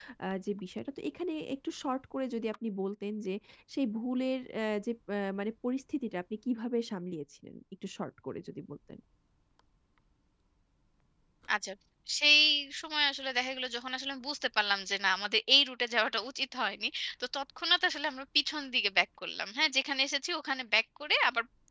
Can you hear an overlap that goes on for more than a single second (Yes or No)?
No